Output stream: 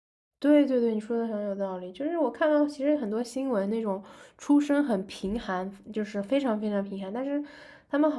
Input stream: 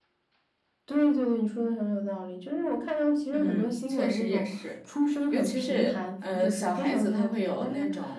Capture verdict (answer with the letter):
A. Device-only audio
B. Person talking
B